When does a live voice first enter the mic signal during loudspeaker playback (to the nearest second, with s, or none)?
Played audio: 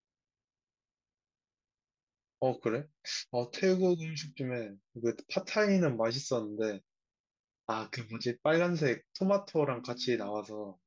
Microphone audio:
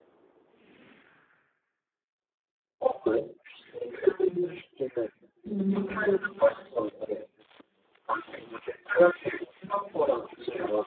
5 s